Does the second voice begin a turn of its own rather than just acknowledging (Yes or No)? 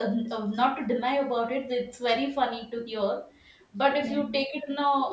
No